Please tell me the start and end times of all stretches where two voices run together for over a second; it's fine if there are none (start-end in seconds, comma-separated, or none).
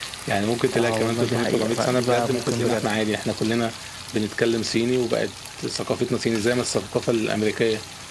0.8-2.9